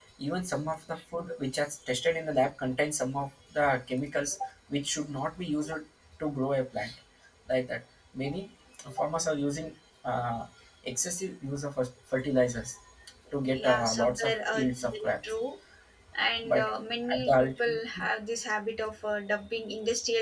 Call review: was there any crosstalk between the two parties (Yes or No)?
Yes